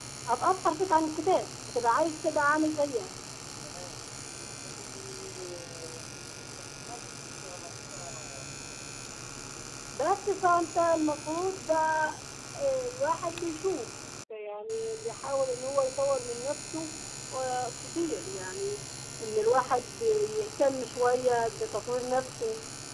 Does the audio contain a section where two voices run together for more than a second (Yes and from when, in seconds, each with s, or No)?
No